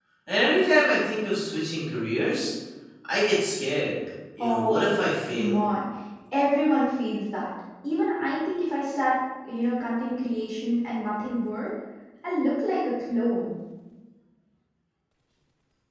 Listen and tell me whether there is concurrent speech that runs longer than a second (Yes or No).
Yes